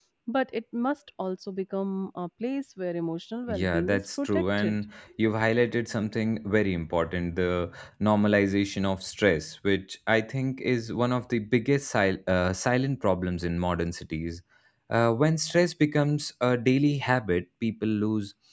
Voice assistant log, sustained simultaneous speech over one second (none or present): present